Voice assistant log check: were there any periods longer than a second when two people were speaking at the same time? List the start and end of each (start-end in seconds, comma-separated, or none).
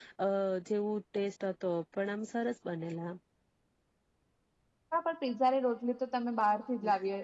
none